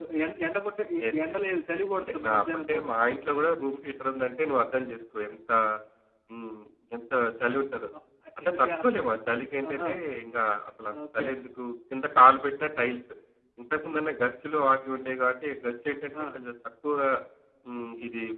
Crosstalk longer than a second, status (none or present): present